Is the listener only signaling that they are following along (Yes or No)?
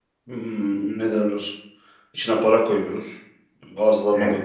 Yes